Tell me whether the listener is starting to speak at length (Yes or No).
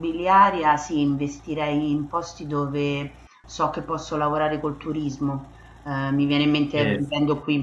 No